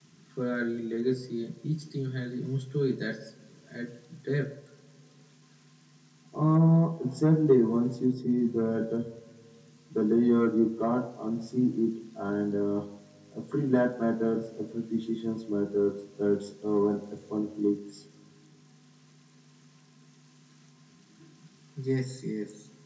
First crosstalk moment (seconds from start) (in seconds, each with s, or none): none